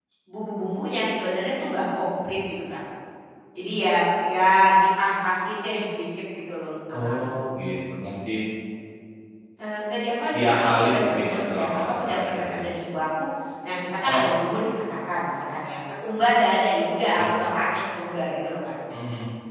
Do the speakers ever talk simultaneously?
Yes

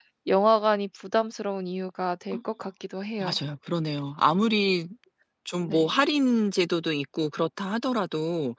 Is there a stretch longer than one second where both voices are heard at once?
No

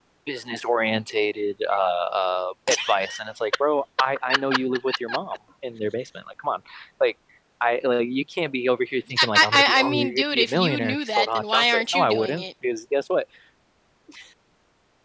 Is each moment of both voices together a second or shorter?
No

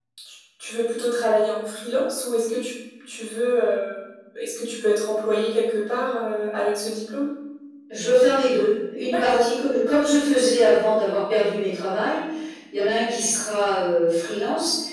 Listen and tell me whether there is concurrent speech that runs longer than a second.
No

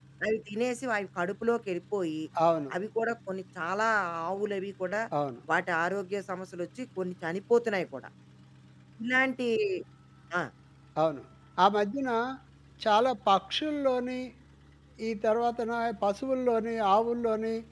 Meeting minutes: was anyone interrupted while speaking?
No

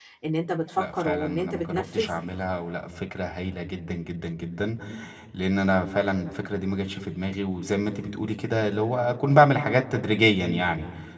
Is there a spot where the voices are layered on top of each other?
Yes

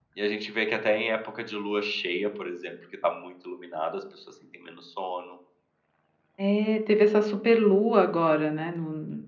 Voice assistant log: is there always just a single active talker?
Yes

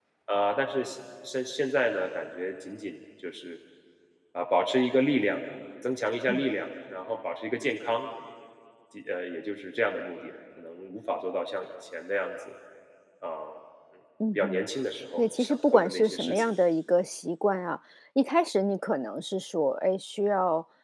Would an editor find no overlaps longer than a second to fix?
No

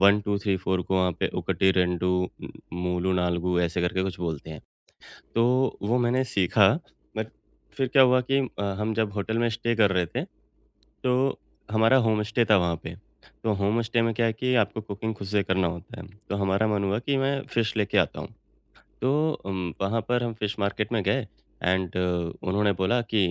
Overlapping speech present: No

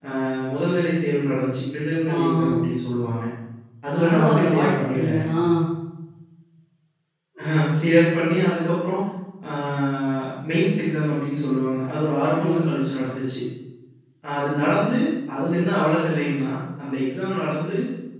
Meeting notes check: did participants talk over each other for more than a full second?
Yes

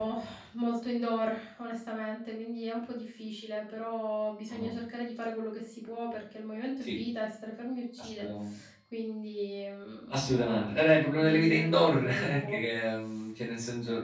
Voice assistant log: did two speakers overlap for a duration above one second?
Yes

